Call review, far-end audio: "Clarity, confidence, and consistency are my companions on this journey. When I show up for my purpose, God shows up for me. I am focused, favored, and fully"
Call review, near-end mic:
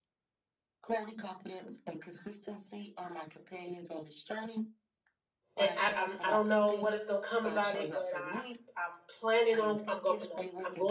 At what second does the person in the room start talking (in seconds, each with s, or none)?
5.6 s